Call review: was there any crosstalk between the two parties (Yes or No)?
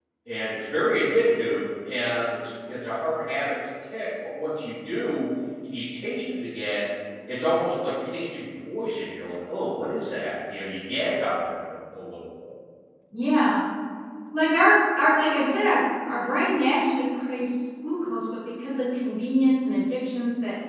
No